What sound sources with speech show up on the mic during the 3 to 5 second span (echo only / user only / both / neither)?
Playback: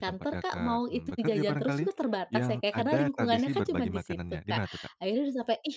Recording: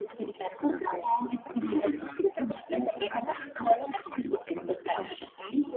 echo only